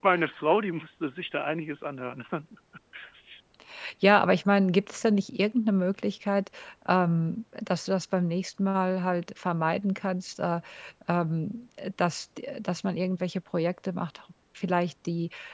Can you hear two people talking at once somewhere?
No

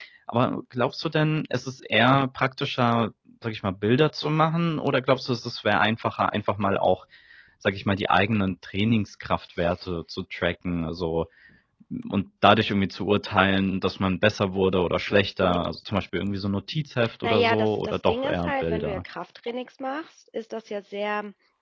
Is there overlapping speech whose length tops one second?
Yes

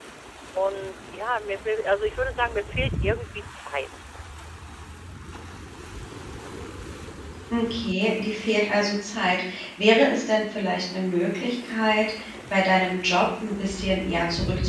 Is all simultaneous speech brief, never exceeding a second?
Yes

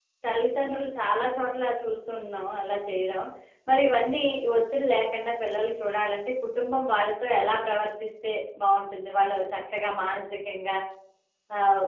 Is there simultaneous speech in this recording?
No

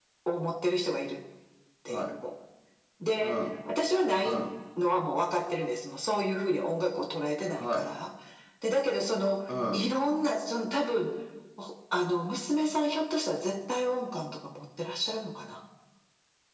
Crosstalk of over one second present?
No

